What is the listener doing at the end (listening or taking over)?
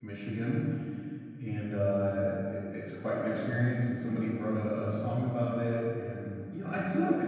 listening